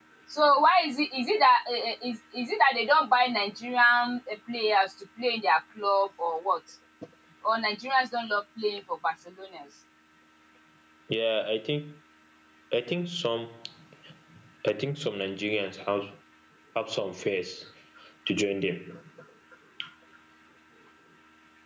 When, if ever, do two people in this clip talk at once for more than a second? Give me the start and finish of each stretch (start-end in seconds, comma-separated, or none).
none